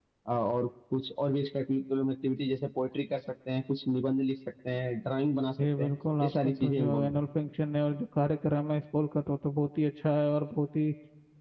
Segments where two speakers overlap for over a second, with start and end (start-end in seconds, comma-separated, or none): 5.8-7.2